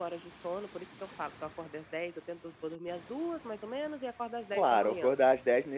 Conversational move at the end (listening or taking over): taking over